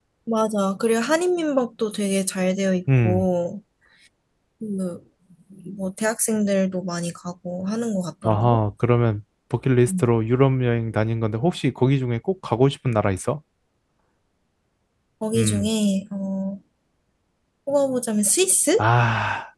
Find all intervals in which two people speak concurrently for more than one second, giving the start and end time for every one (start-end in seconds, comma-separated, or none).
none